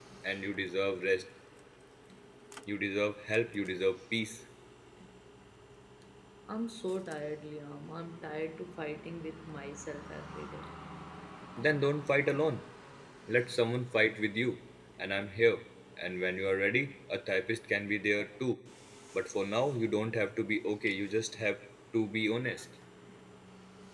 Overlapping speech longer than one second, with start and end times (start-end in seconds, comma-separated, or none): none